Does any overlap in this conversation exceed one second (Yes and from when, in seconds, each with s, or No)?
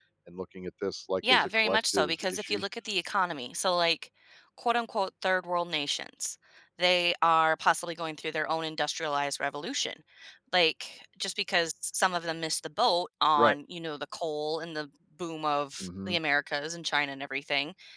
Yes, from 1.3 s